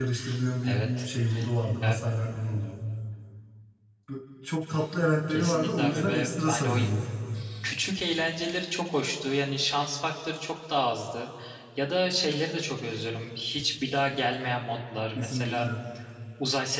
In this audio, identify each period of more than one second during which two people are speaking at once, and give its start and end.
5.3-6.8

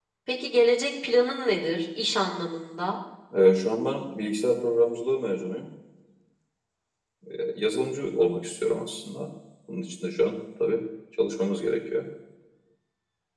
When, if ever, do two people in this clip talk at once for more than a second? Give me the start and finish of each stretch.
none

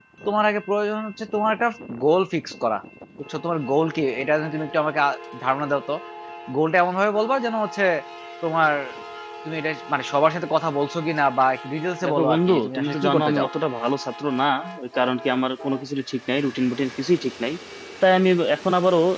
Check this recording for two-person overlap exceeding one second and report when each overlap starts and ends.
12.1-13.5

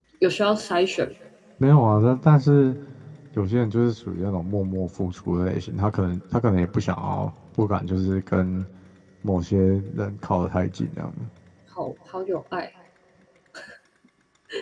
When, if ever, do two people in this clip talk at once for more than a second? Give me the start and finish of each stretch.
none

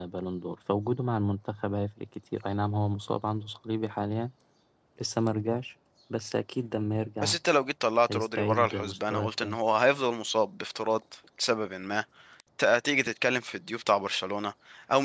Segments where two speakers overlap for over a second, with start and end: 8.1-9.6

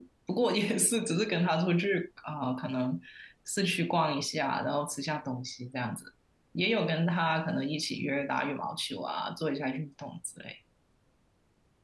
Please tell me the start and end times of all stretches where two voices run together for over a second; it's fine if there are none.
none

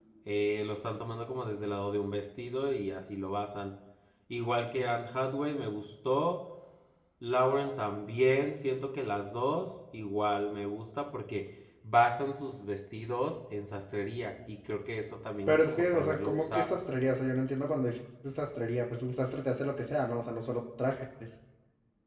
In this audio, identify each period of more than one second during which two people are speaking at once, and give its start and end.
15.5-16.7

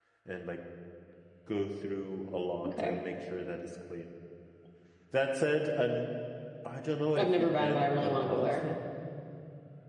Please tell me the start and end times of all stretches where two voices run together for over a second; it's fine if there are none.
7.2-8.6

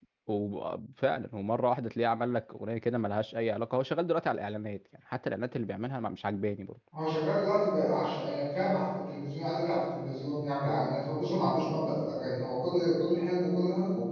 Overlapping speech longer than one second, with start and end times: none

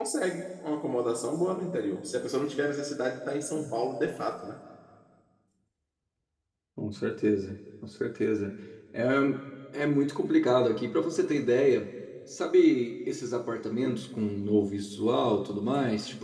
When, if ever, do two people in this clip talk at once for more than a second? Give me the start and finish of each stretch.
none

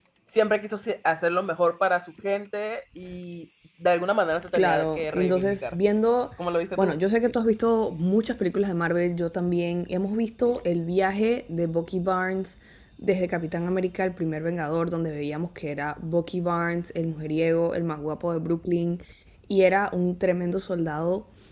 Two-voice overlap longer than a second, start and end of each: 4.5-5.8

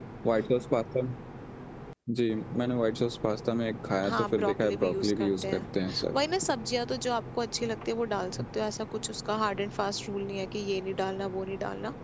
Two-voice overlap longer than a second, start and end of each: 4.0-5.7

